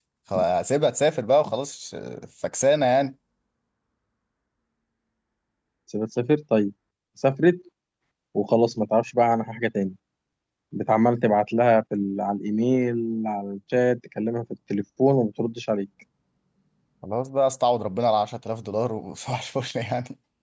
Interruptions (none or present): none